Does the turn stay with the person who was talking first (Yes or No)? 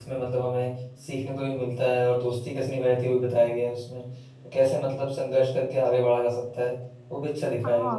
No